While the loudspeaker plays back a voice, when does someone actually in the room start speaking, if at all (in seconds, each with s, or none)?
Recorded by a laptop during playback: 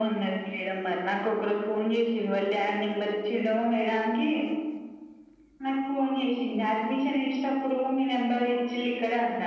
6.5 s